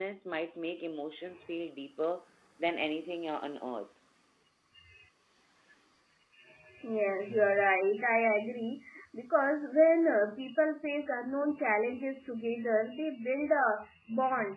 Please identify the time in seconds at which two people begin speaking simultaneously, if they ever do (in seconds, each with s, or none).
none